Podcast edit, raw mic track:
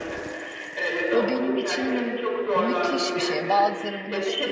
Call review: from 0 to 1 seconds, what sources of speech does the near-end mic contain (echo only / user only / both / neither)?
echo only